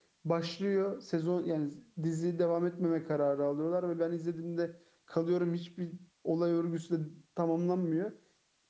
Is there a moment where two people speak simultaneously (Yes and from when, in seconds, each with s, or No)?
No